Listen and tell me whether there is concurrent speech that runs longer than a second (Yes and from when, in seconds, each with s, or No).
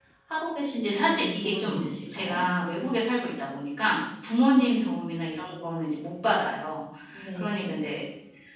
Yes, from 0.8 s